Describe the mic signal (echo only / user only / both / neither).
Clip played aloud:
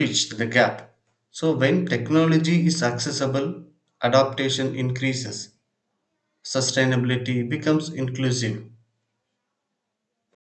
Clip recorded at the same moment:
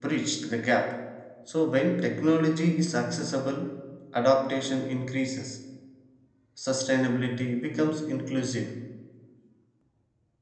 echo only